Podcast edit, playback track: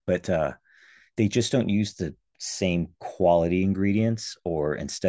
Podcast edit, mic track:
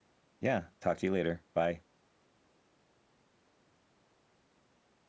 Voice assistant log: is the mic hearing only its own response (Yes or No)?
No